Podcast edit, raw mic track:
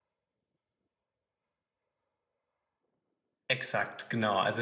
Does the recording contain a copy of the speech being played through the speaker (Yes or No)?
No